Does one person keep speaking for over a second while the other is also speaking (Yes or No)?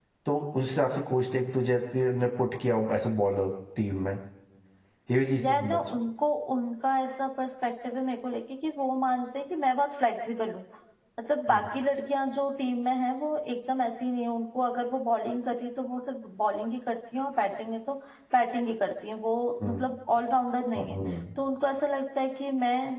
No